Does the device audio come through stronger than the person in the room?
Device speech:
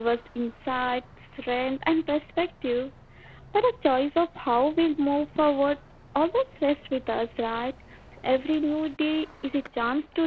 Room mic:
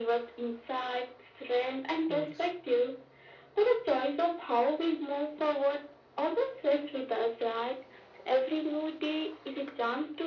Yes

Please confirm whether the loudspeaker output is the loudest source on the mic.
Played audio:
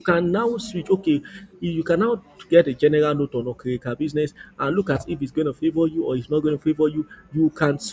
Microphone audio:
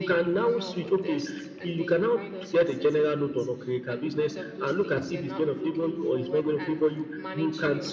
Yes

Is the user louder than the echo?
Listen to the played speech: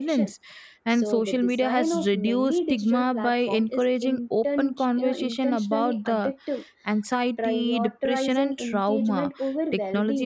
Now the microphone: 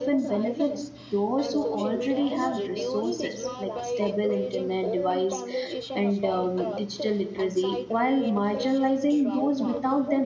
Yes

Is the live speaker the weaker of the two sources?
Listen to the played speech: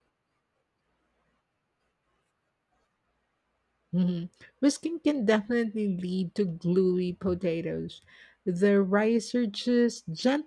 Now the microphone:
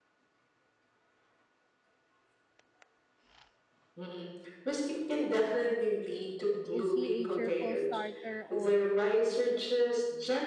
Yes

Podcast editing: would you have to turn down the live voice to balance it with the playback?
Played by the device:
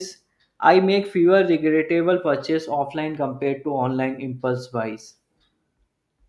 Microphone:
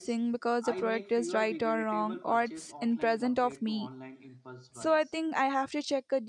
Yes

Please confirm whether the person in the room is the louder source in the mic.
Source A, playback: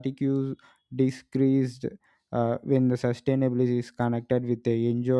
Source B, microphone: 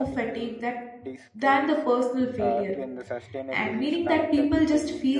Yes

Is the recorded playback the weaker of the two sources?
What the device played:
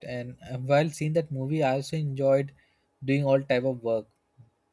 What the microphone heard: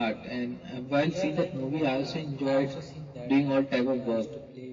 No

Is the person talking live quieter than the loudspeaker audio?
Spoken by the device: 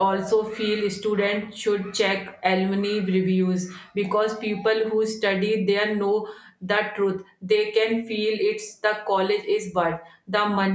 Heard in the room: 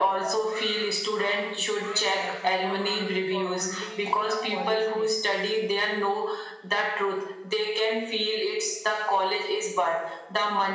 Yes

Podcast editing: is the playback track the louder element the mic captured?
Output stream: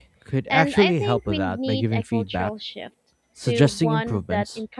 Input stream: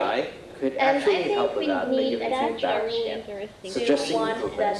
Yes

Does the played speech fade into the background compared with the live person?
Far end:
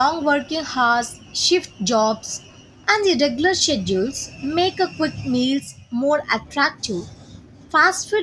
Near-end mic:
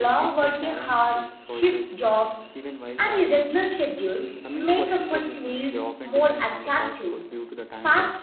No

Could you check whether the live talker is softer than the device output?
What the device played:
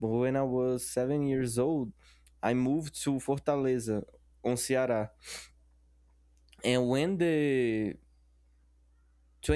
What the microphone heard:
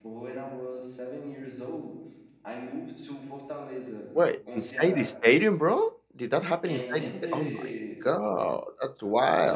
No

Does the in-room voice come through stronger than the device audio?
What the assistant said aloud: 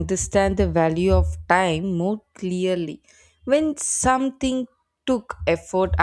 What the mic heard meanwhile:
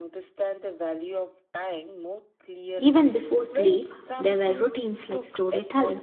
Yes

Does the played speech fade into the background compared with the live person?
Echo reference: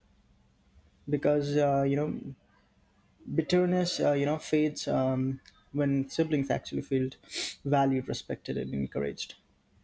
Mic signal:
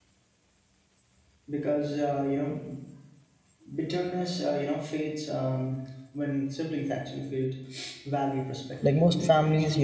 Yes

